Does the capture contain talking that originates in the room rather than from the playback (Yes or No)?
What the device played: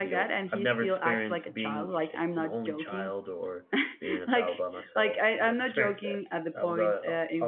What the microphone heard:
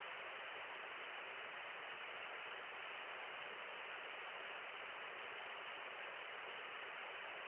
No